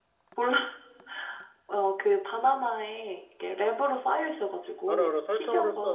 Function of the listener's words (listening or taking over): taking over